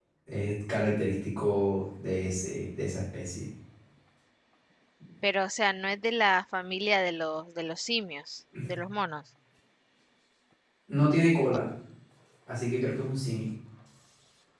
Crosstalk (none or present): none